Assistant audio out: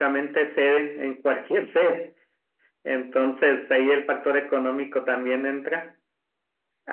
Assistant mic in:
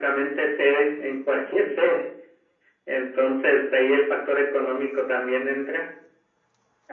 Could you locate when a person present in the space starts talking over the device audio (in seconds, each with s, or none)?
none